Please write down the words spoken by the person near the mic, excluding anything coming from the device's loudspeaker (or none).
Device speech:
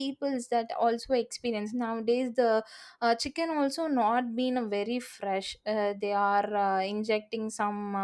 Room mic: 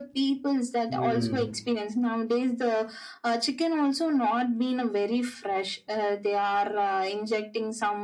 Hmm.